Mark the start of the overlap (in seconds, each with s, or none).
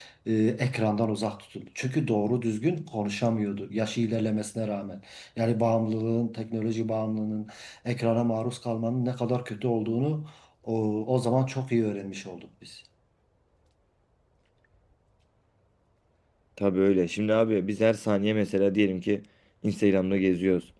none